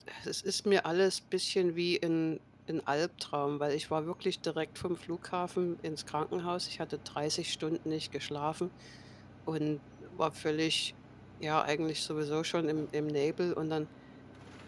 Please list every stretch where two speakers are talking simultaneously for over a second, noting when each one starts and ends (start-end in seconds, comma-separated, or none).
none